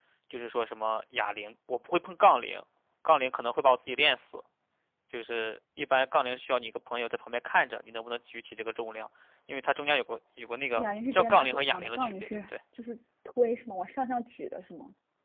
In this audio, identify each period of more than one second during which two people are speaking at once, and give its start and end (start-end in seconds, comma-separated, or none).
10.8-12.4